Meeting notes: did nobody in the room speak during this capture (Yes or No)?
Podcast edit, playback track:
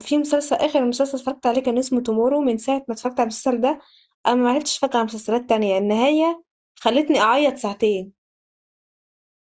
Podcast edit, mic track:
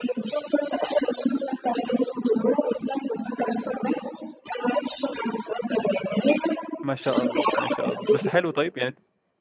No